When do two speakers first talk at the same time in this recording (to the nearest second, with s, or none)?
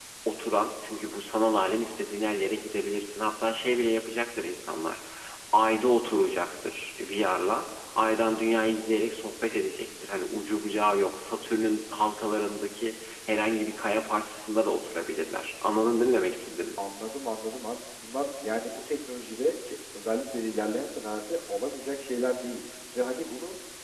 none